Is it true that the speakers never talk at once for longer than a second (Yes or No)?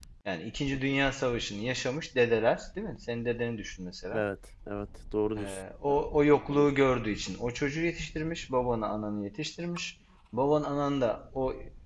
Yes